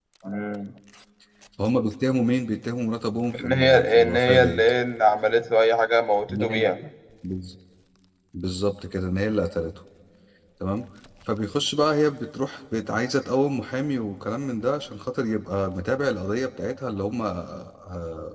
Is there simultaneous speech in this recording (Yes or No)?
Yes